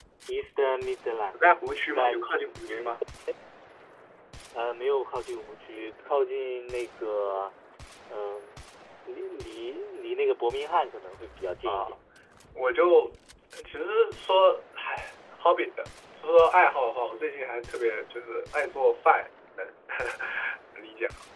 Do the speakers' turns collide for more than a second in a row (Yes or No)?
No